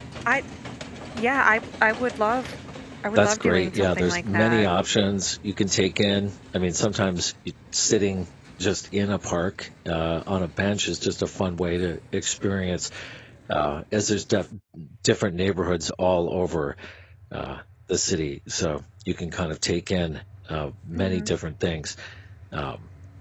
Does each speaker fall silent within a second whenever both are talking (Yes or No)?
No